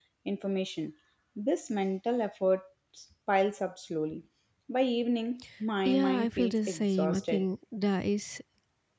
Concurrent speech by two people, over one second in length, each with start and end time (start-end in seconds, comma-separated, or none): 5.8-7.4